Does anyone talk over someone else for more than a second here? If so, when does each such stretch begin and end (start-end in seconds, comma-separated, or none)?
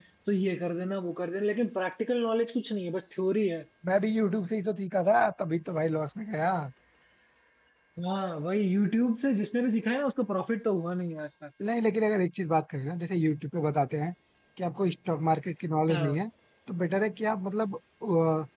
none